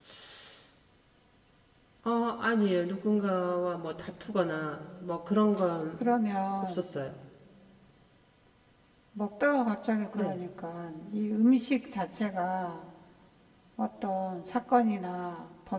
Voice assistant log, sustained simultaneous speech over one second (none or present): none